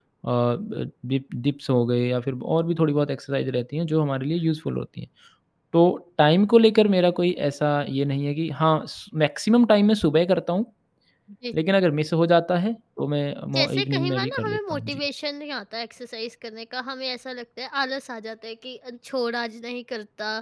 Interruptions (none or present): present